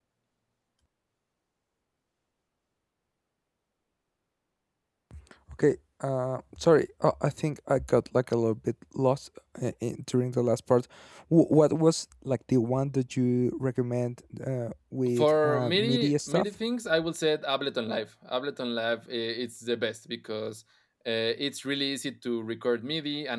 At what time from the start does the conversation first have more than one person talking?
15.2 s

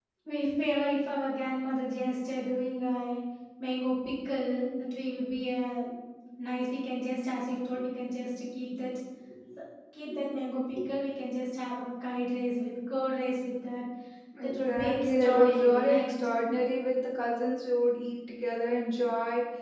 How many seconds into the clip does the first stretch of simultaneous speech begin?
14.4 s

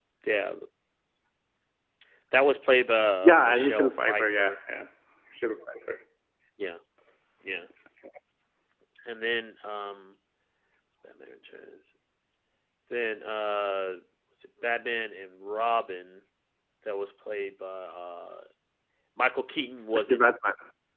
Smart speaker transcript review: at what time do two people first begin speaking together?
3.2 s

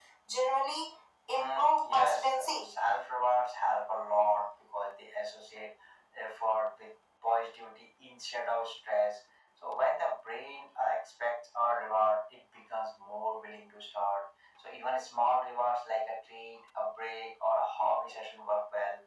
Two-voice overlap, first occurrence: 1.3 s

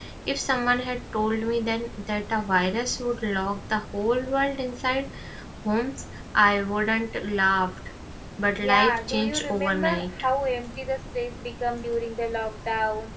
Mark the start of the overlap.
8.6 s

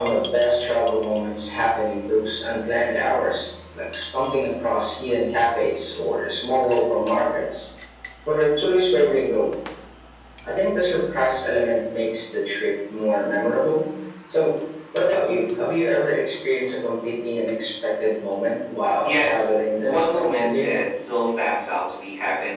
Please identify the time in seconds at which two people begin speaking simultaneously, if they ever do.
19.0 s

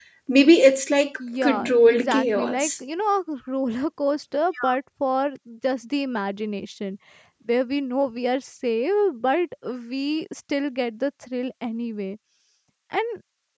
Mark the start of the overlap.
1.2 s

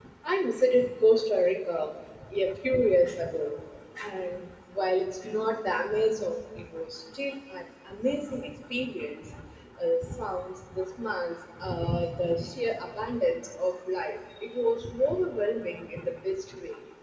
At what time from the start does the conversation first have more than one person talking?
none

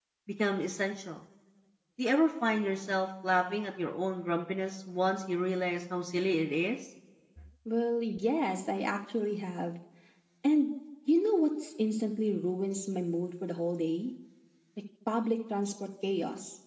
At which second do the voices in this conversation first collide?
none

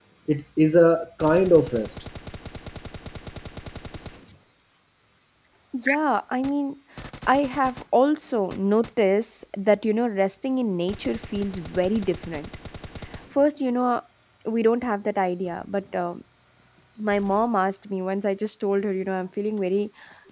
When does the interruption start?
none

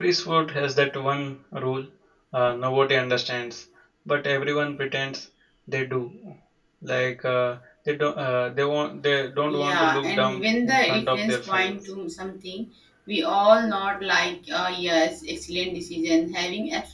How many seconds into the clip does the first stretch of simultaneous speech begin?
9.4 s

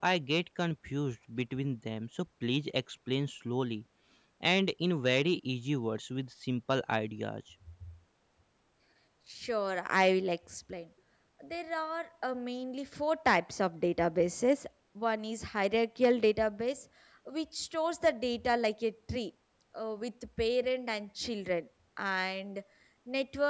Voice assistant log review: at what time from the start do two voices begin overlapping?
none

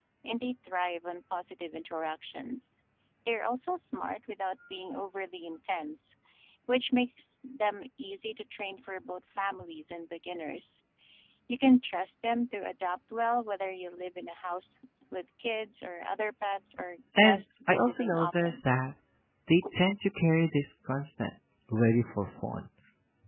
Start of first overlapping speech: 17.2 s

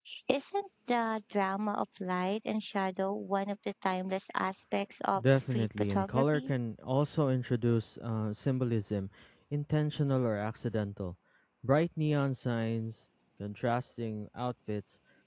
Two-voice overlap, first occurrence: 5.2 s

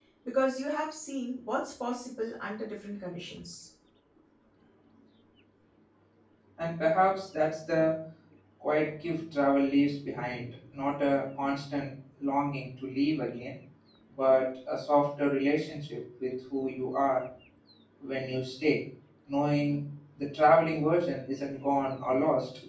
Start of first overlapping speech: none

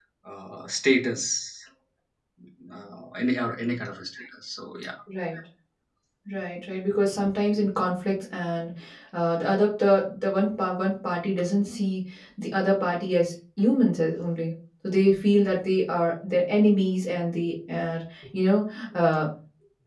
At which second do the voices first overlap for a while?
none

